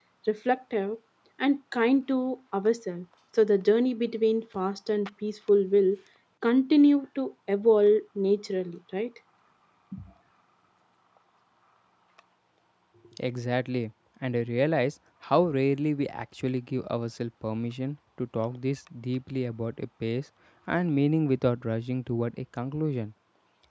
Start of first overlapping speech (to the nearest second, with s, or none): none